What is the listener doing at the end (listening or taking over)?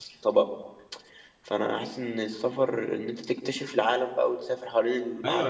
taking over